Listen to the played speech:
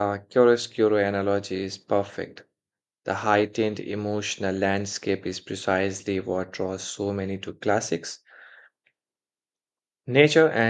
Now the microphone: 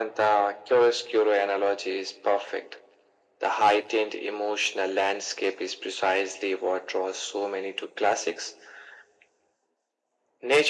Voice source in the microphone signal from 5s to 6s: echo only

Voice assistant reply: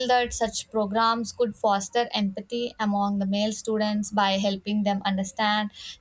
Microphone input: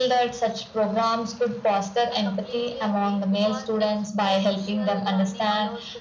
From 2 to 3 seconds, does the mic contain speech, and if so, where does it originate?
both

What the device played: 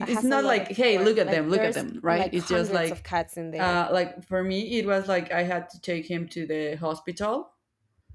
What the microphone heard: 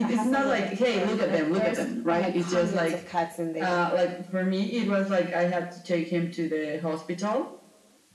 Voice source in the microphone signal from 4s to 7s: echo only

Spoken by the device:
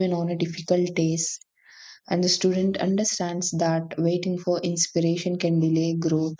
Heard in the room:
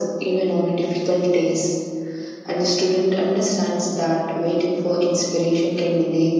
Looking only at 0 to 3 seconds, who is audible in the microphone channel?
echo only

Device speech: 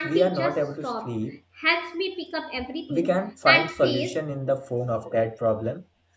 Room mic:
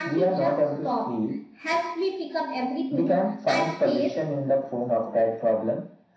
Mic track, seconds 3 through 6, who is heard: echo only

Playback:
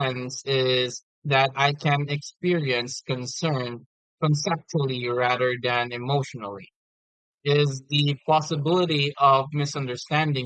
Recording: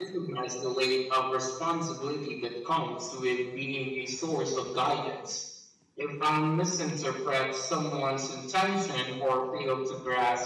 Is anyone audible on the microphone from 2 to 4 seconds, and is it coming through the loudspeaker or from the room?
user only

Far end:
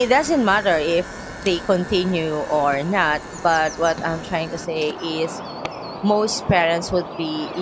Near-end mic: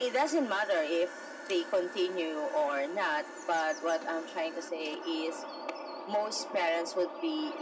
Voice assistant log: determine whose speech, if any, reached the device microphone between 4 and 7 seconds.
echo only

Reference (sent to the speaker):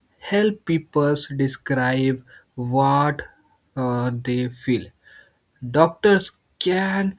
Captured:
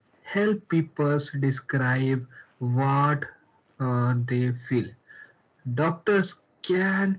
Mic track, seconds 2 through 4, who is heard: echo only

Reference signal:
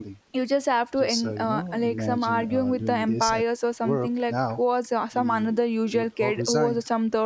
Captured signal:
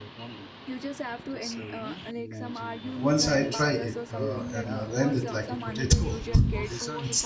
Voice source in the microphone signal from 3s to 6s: both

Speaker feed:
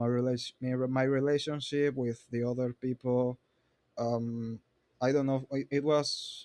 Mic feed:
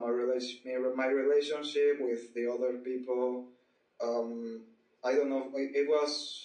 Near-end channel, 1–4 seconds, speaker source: echo only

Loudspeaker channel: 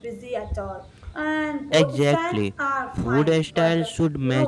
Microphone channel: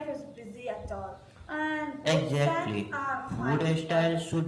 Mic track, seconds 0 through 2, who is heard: echo only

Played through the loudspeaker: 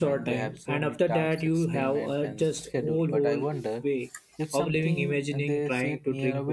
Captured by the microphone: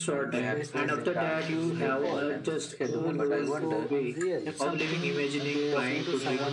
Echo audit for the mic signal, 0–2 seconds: both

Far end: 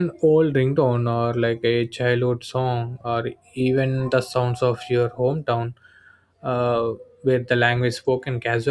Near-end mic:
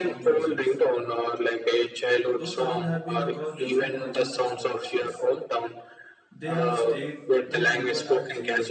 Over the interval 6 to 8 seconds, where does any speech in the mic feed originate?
both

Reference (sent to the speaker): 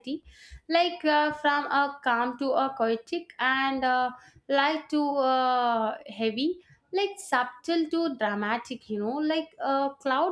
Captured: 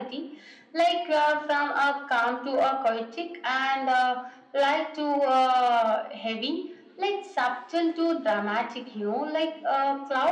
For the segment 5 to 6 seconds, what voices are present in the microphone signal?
echo only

